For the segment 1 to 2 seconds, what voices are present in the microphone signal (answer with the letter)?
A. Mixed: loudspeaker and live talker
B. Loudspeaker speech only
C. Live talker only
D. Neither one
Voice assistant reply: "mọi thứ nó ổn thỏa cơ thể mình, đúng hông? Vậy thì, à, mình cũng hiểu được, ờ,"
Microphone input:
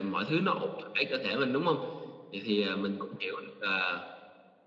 B